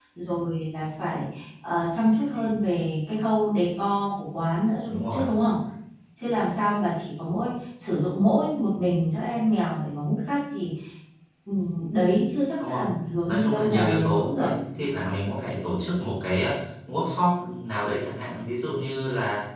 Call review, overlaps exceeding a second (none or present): present